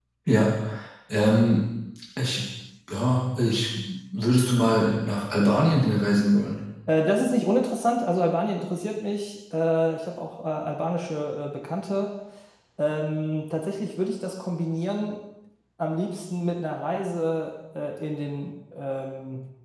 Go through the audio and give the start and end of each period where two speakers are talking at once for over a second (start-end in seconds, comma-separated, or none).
none